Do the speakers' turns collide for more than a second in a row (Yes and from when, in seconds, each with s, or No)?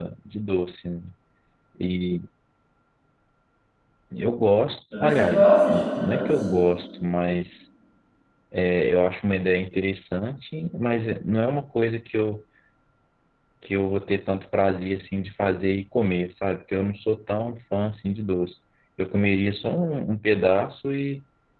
Yes, from 5.0 s